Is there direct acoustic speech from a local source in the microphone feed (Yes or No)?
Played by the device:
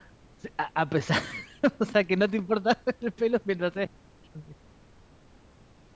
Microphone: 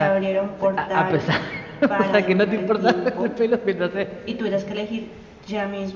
Yes